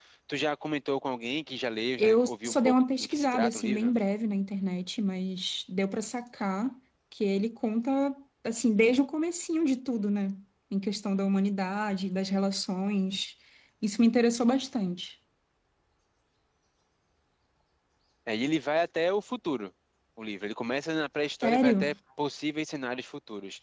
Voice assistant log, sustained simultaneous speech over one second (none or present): present